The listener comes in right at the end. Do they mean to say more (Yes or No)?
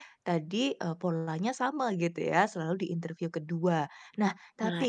No